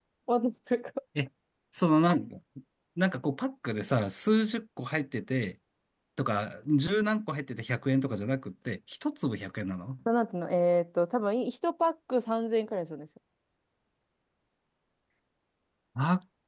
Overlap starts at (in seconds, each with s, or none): none